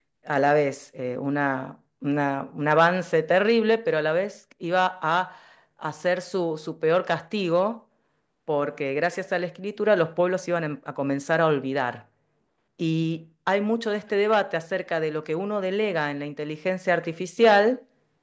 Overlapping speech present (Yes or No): No